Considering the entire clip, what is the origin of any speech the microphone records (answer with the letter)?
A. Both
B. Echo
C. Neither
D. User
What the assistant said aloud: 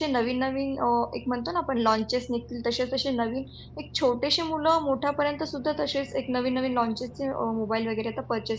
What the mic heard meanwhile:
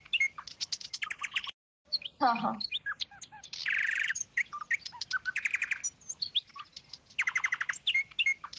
D